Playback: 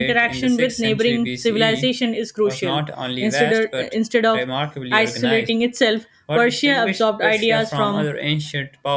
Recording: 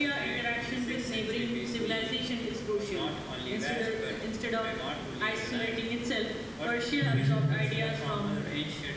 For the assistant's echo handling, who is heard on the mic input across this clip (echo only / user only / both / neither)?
both